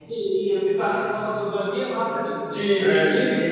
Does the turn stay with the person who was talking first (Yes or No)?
No